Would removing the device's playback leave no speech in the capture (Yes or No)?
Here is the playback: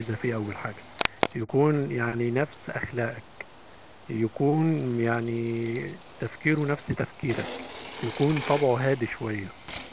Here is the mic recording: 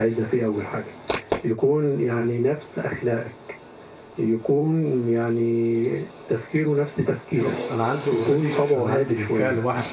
No